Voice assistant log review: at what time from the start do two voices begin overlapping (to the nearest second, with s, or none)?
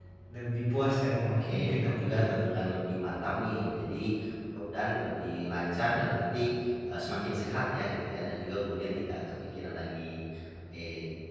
1 s